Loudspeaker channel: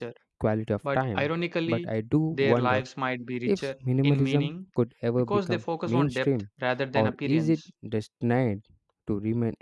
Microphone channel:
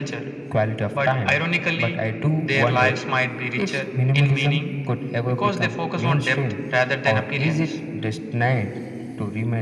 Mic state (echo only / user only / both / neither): echo only